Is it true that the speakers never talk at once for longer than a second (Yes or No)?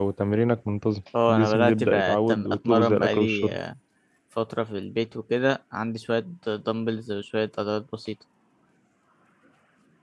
No